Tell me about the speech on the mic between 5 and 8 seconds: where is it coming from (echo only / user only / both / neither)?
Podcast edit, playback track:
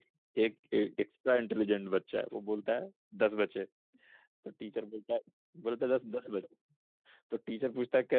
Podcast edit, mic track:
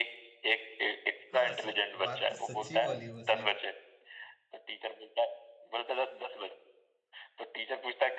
echo only